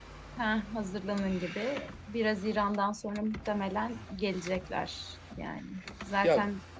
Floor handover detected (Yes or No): No